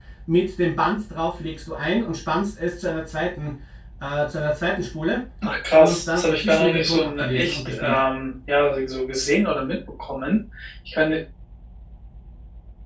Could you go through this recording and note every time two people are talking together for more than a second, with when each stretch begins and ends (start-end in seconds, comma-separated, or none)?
5.8-8.0